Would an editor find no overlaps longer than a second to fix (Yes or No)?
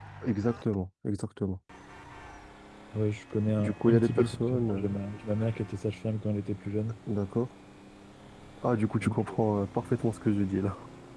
No